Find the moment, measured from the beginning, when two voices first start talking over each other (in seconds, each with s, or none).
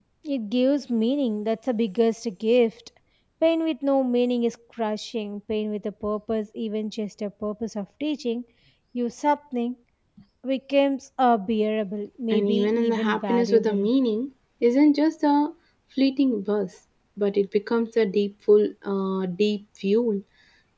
12.3 s